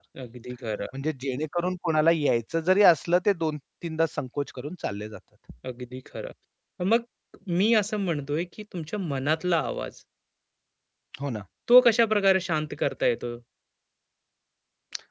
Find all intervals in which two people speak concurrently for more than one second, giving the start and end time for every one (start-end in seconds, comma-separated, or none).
none